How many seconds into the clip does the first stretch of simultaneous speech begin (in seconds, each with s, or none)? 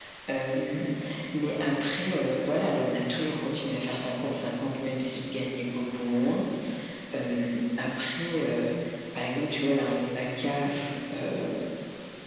none